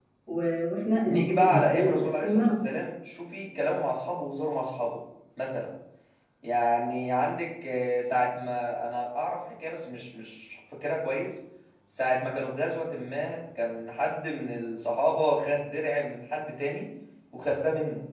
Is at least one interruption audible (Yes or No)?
Yes